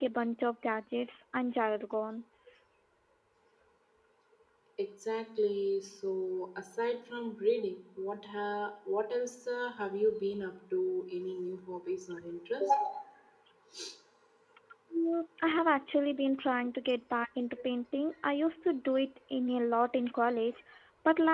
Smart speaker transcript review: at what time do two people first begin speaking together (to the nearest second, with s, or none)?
none